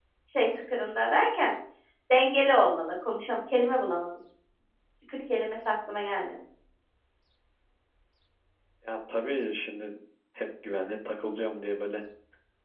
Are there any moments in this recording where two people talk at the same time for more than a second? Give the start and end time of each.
none

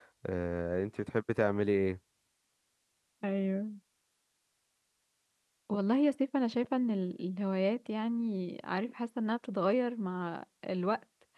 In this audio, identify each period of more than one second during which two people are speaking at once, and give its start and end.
none

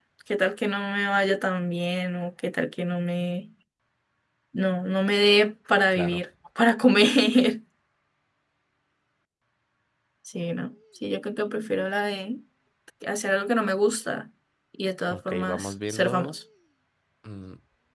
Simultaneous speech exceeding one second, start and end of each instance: 15.1-16.3

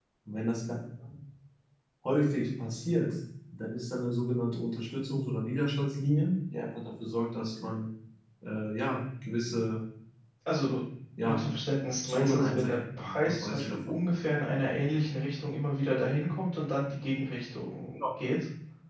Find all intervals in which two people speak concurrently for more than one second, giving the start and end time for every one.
12.1-13.8

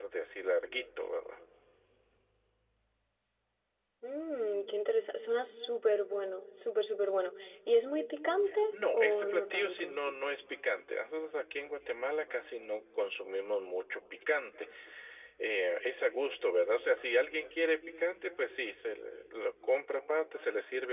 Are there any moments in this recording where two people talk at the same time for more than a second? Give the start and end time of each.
8.7-10.0

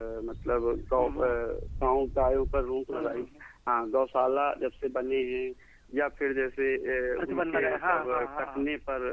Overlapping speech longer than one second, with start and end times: 7.2-8.6

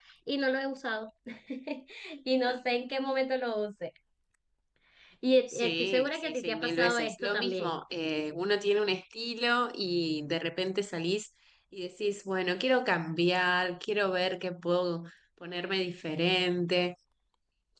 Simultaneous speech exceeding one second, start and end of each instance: 5.5-7.8

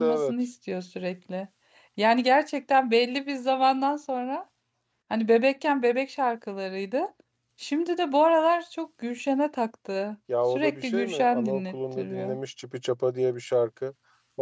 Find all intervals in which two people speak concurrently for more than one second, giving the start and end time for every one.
10.5-12.4

